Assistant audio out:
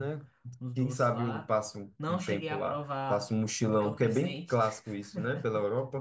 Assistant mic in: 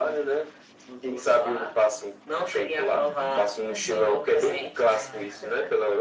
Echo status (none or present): present